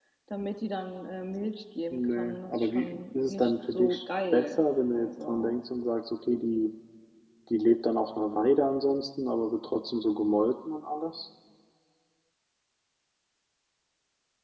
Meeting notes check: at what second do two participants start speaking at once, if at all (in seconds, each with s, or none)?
1.9 s